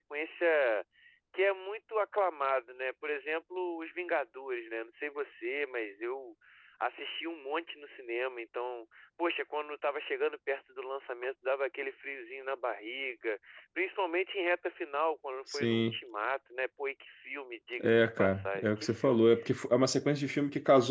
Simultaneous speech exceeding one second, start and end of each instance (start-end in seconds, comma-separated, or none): 17.8-19.2